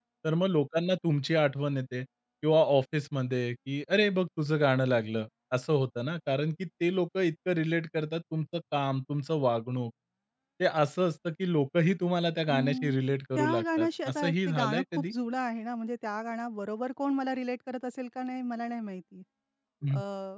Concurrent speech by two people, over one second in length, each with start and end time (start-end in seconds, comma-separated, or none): 13.3-15.0